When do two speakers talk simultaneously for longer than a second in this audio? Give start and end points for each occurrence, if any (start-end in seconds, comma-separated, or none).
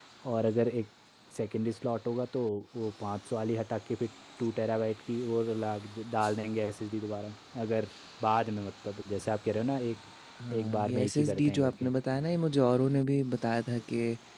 10.5-11.9